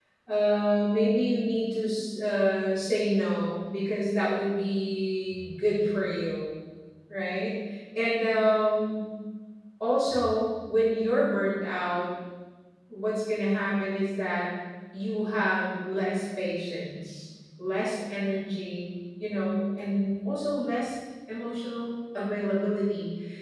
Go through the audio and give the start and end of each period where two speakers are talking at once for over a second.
none

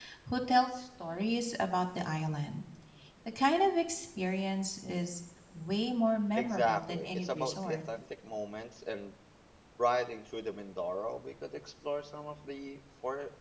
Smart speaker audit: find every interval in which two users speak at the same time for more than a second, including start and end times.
6.4-7.8

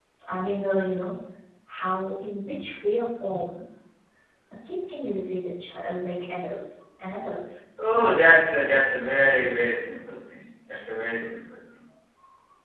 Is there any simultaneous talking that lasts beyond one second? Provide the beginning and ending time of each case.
none

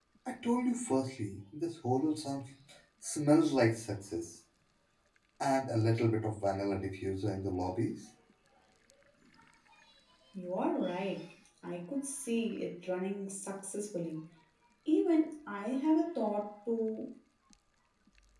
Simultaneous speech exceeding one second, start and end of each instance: none

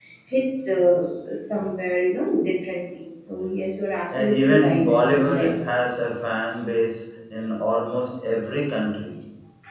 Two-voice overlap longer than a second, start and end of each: 4.1-5.5

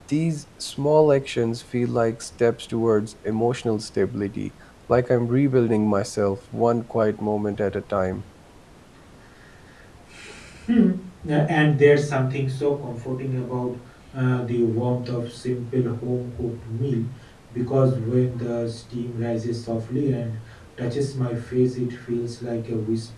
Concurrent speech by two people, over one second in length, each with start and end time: none

